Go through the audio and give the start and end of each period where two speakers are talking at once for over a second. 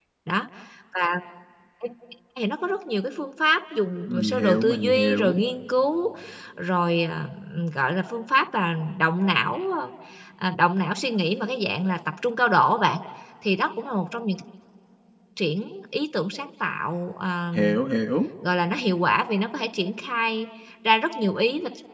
4.1-5.4

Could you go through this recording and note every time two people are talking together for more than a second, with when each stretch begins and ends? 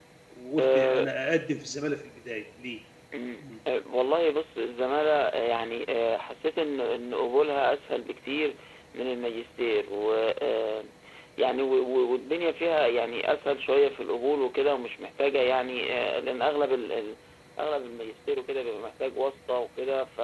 none

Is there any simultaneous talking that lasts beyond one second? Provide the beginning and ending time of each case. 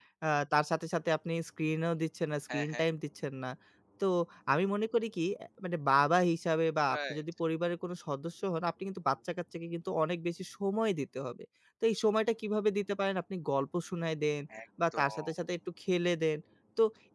none

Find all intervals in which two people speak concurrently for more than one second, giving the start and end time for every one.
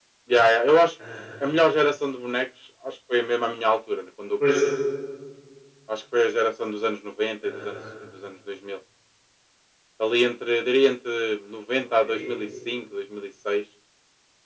none

